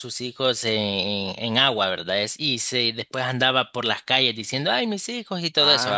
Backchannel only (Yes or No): No